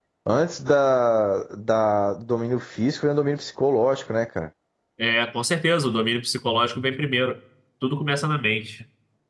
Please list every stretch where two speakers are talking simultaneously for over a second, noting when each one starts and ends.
none

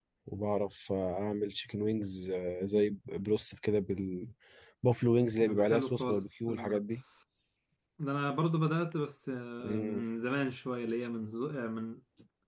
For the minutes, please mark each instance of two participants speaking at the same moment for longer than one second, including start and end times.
5.5-6.8

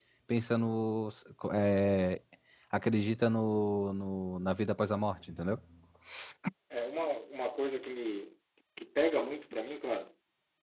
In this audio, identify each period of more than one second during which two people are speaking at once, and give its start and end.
none

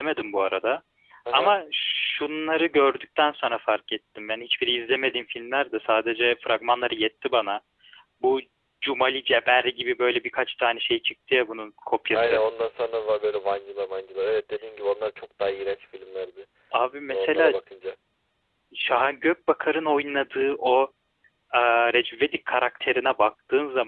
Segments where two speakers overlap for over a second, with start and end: none

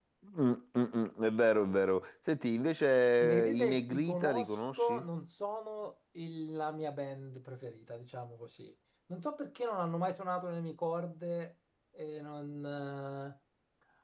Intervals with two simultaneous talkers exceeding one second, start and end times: 3.2-5.0

